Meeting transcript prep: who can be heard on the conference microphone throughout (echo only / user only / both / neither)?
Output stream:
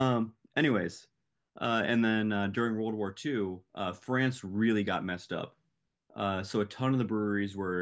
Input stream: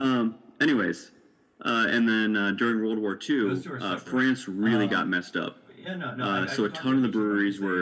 both